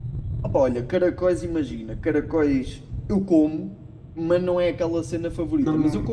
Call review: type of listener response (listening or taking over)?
listening